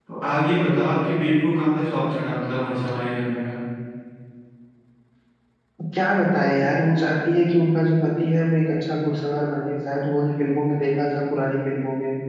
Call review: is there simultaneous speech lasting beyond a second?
No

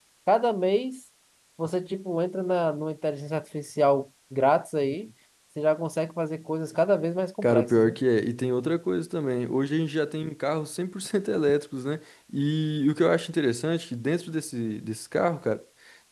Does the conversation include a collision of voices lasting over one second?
No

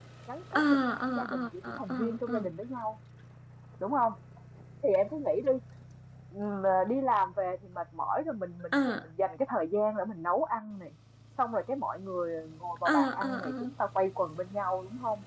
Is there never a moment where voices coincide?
No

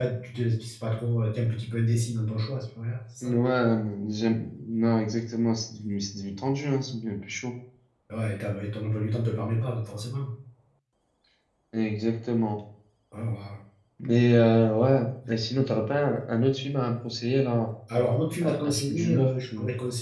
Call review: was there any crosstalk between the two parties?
Yes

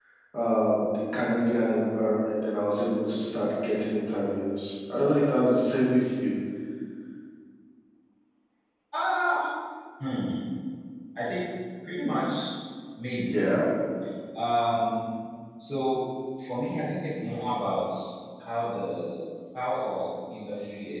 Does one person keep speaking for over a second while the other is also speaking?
No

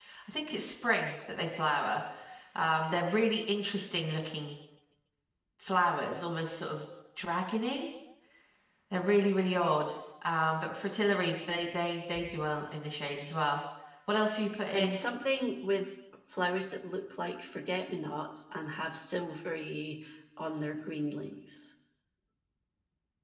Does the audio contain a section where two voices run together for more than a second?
No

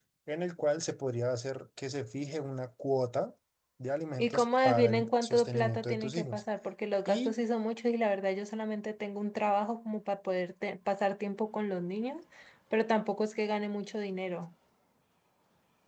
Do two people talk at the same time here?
Yes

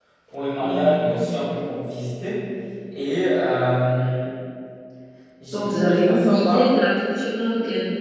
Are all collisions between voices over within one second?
No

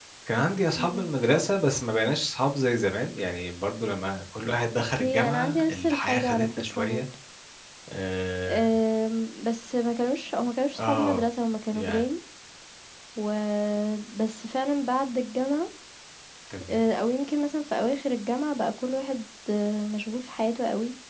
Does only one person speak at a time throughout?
No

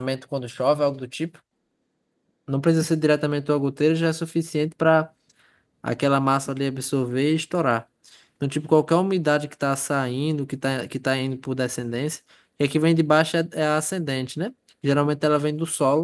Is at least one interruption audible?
No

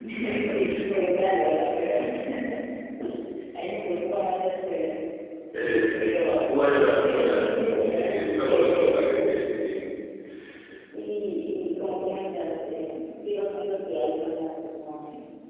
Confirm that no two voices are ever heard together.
No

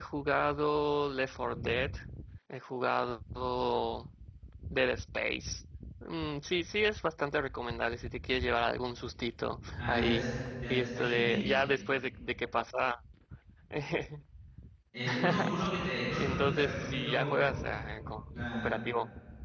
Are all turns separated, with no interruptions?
No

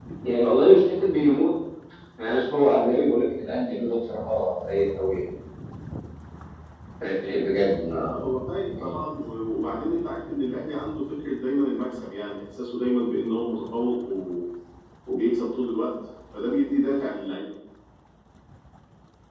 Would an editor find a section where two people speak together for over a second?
No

